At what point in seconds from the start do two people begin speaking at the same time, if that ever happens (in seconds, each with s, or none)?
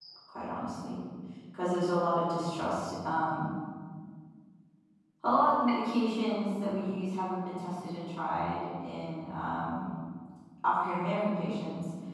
none